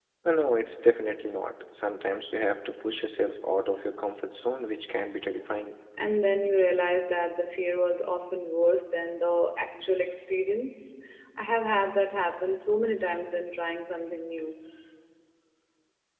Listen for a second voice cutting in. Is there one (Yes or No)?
No